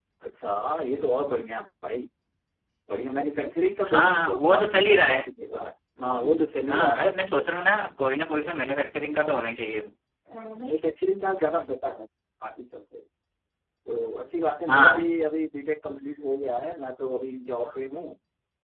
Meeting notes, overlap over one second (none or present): present